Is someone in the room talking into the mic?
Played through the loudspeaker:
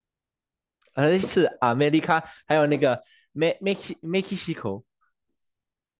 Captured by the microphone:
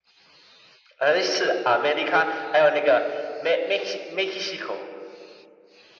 No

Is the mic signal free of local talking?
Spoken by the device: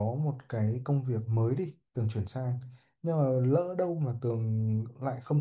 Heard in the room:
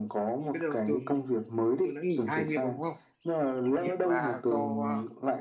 No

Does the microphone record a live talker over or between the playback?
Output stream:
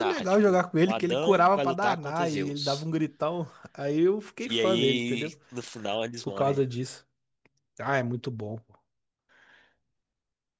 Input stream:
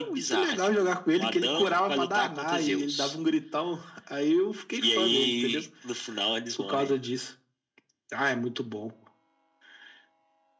No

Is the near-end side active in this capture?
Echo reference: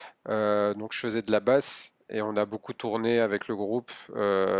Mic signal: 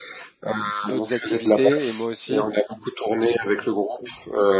Yes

